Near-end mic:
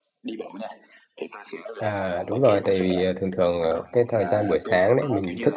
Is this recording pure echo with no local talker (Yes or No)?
No